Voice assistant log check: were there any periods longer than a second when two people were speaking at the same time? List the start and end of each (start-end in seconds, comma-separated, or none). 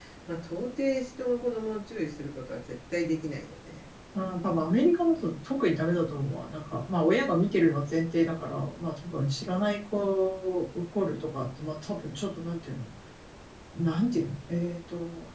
none